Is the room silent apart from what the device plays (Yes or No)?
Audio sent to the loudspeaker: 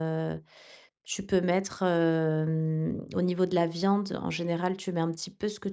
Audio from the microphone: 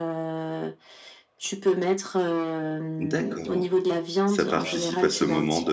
No